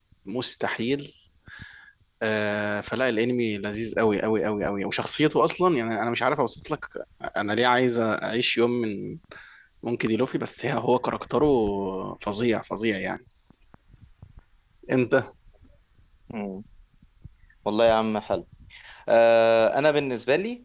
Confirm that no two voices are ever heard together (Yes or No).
Yes